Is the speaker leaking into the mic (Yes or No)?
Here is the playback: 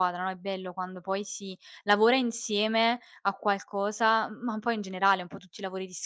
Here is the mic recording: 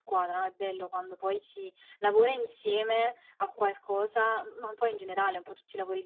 Yes